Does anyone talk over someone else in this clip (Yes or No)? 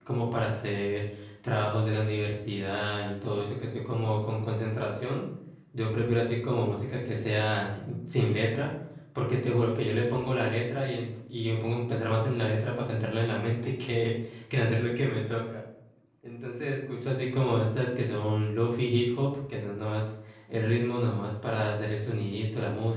No